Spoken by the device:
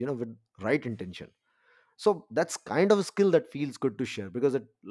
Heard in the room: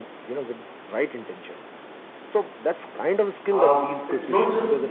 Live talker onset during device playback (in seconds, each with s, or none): 3.5 s